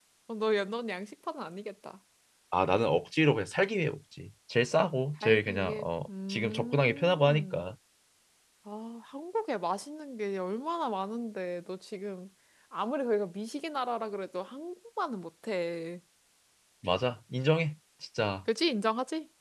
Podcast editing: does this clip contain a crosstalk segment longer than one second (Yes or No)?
Yes